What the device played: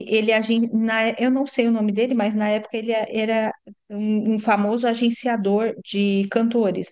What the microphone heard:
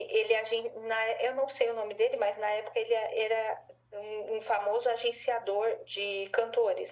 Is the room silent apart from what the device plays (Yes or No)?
Yes